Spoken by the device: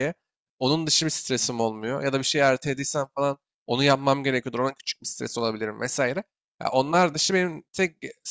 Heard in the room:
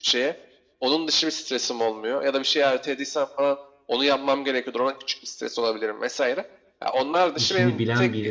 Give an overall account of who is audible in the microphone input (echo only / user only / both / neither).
both